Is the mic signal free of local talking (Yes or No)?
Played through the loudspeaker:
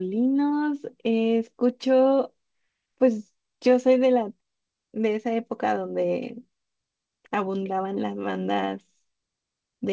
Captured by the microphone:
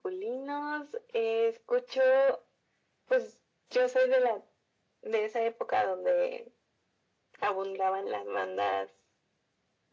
Yes